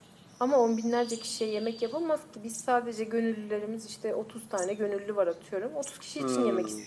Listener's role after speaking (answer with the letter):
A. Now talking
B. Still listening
A